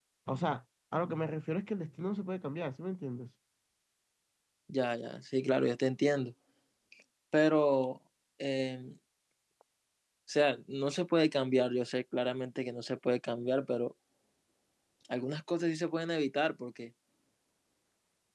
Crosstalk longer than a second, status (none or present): none